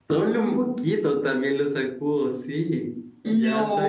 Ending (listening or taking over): taking over